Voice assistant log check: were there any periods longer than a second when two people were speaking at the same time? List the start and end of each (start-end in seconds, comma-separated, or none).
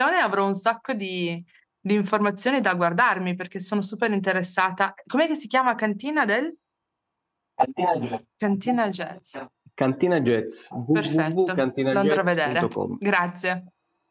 10.9-12.7